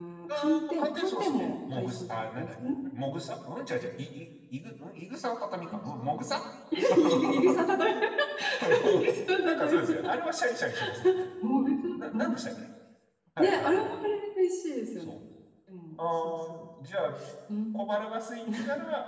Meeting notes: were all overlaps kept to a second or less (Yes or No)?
No